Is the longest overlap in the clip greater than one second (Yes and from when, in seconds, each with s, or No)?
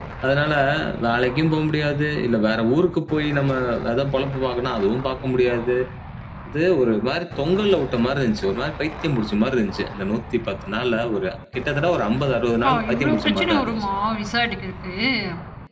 Yes, from 12.6 s